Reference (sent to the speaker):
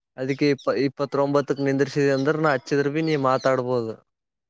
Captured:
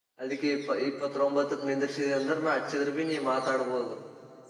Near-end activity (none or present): none